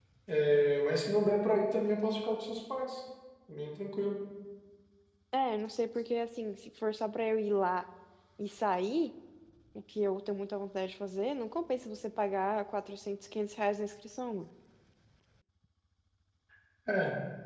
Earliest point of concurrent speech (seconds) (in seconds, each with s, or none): none